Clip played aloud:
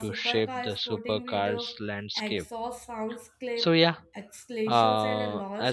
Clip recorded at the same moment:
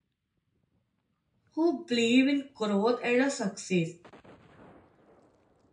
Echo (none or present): none